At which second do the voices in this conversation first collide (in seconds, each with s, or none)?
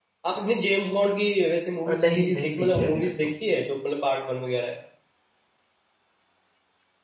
1.9 s